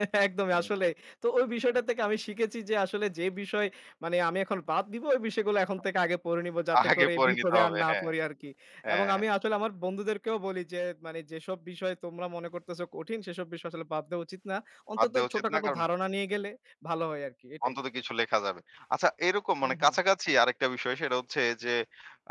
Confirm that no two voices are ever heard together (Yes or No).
No